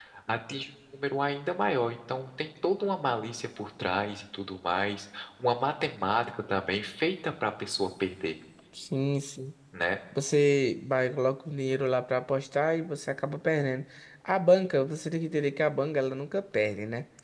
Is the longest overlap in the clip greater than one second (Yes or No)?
No